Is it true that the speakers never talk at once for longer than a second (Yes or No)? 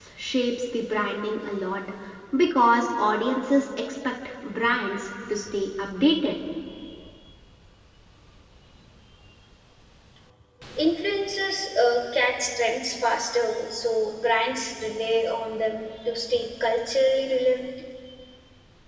Yes